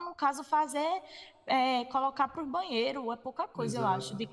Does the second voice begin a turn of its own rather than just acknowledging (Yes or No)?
Yes